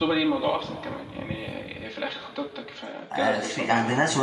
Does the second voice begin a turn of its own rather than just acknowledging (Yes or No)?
Yes